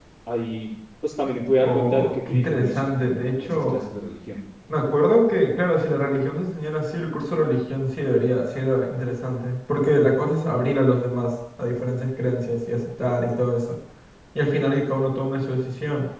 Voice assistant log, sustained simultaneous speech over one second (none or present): present